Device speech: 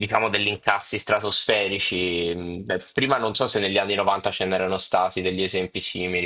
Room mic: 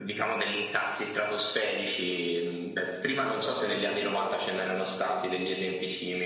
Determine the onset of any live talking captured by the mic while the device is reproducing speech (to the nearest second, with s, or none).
3 s